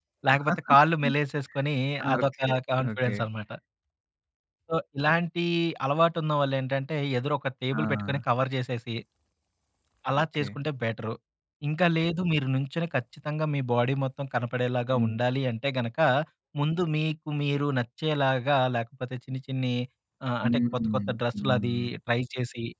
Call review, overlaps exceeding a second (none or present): present